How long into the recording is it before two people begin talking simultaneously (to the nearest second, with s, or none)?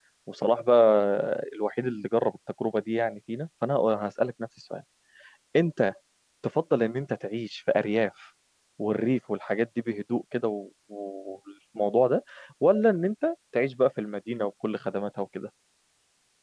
none